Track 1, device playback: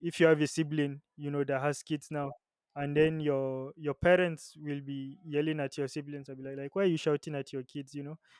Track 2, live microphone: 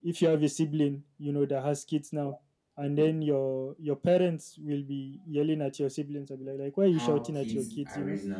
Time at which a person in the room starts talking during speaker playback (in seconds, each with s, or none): 6.9 s